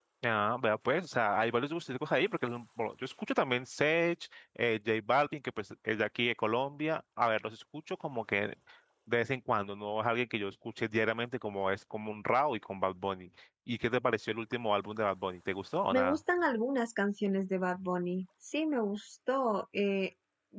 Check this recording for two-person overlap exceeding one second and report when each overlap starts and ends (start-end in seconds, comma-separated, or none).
none